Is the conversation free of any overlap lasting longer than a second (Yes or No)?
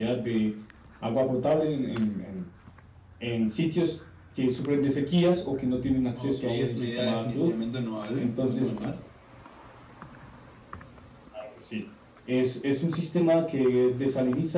No